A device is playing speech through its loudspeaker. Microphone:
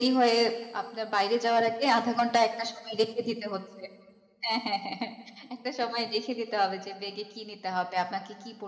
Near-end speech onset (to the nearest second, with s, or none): none